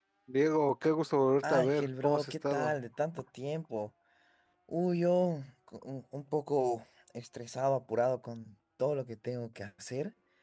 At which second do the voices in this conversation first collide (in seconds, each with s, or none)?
1.4 s